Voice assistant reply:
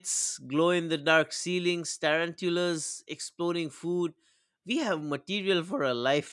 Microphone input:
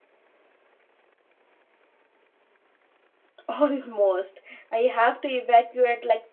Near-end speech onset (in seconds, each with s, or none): 3.5 s